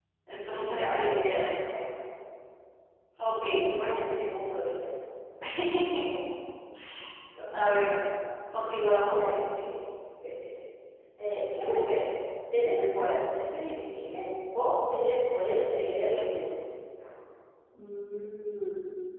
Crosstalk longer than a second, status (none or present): present